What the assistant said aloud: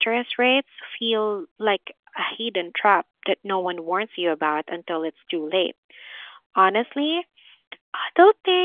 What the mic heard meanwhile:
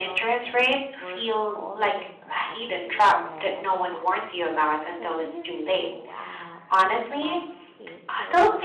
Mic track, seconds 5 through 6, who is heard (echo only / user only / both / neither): both